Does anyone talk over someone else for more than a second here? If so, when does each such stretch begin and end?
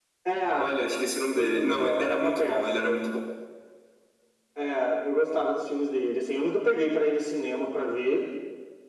1.3-3.0

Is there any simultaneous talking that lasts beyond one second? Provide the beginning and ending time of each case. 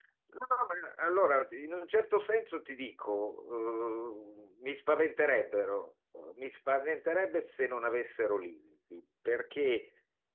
none

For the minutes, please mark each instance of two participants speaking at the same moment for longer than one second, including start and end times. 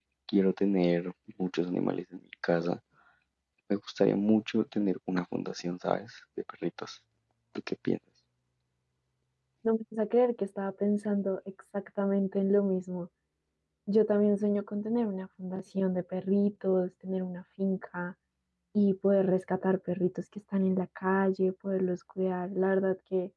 none

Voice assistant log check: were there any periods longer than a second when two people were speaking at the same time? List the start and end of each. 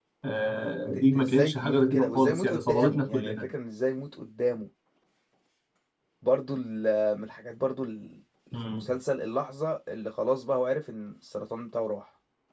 0.8-3.5

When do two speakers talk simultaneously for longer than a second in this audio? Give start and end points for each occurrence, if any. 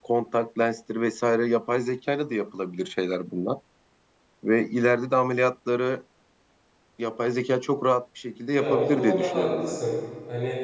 8.5-9.8

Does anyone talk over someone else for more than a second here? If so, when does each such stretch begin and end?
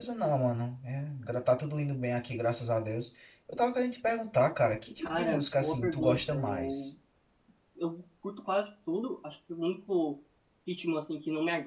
5.0-6.9

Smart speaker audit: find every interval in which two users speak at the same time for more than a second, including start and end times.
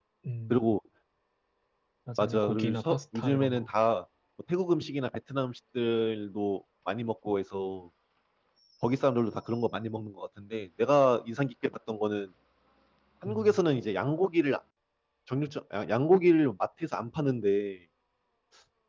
2.2-3.7

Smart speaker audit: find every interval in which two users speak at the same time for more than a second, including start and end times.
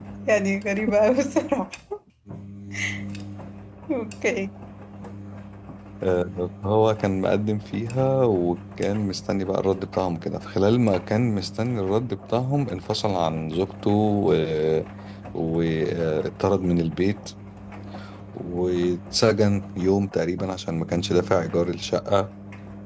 none

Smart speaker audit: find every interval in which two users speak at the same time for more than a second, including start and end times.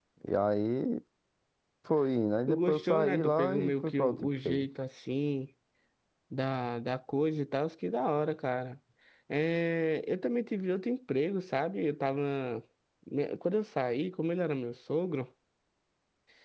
2.5-4.7

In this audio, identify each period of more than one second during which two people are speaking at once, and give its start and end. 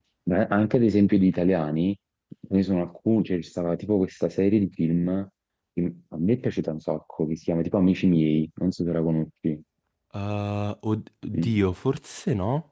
none

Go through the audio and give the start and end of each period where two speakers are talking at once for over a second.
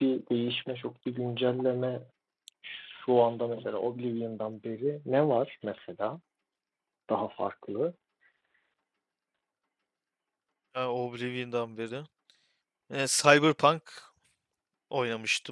none

